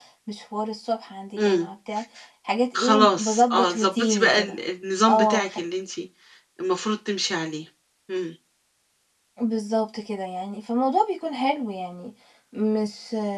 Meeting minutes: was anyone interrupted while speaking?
Yes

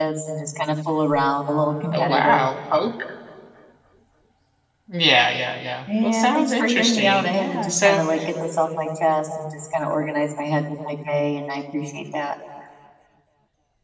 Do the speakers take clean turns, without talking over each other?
No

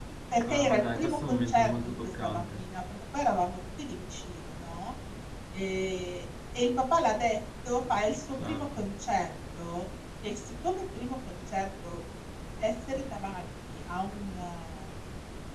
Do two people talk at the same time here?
Yes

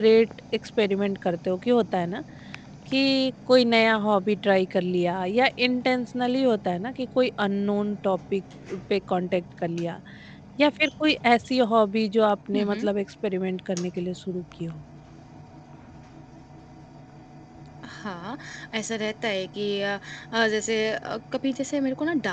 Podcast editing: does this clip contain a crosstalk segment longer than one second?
No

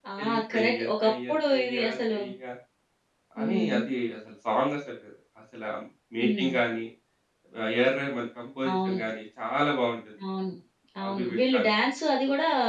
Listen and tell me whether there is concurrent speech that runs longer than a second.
Yes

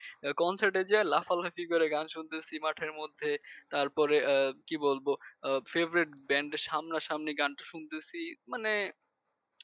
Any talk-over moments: No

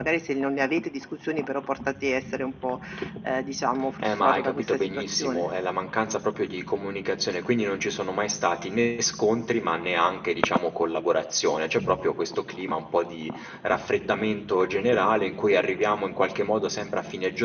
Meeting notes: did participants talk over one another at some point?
Yes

